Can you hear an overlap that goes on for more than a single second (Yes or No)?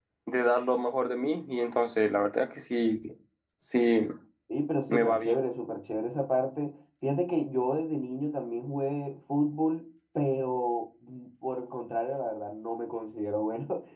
No